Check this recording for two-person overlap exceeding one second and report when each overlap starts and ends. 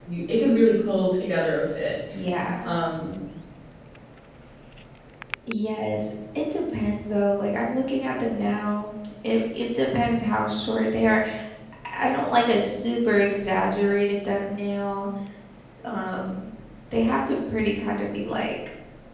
none

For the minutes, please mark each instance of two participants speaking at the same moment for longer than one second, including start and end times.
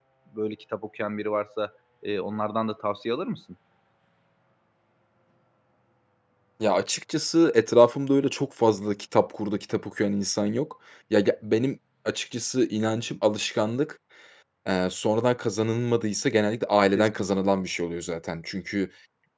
none

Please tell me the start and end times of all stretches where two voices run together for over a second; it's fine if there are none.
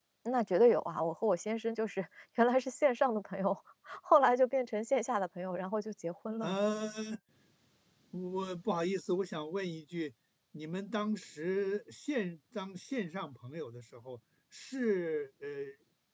none

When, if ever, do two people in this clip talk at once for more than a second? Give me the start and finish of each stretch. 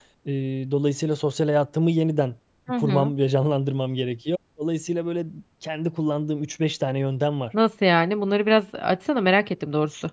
none

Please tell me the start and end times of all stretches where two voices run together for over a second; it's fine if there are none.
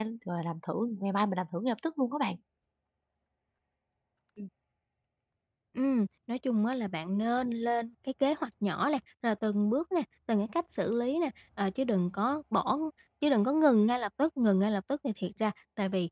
none

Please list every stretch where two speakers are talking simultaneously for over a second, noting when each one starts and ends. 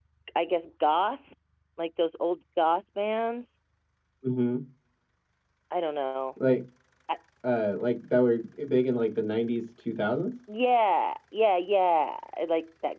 none

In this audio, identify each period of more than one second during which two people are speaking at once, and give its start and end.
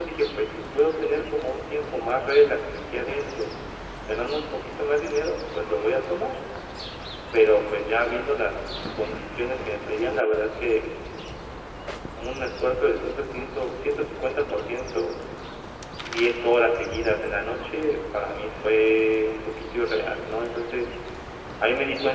none

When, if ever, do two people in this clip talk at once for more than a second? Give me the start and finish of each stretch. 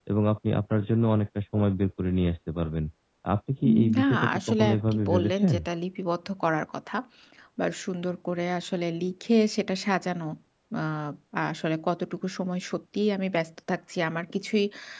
3.7-5.5

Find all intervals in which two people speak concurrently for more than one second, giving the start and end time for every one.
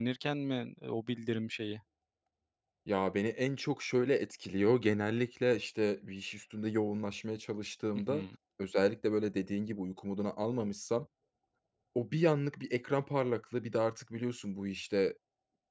none

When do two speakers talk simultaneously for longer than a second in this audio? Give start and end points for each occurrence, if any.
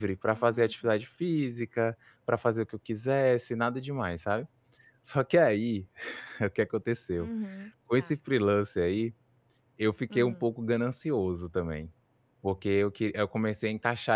none

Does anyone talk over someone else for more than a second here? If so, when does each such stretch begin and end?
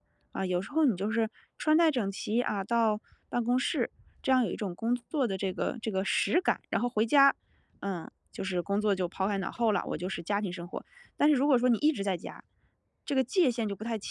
none

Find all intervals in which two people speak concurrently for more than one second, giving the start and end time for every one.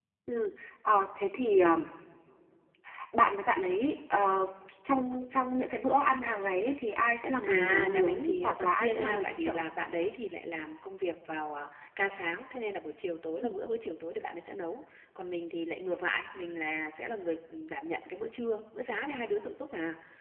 7.4-9.6

